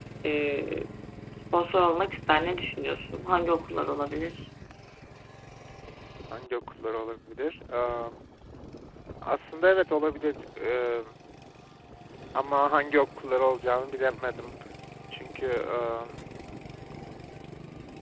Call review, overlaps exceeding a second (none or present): none